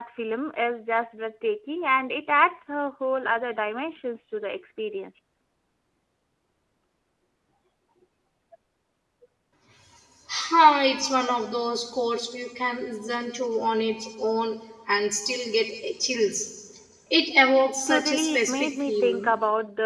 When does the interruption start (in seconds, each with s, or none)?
17.9 s